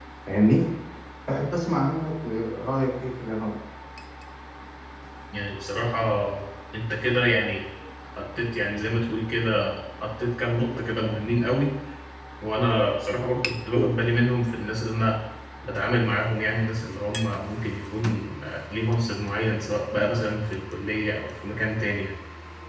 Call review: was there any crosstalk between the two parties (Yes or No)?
No